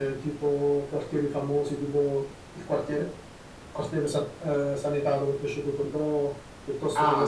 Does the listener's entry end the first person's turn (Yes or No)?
Yes